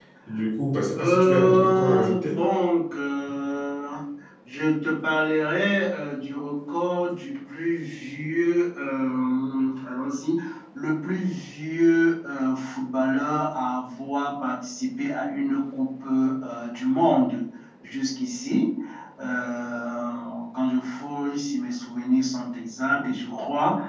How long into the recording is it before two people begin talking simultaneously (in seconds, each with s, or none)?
1.0 s